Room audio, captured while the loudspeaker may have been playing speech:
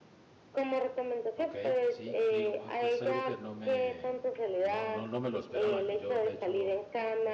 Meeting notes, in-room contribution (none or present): present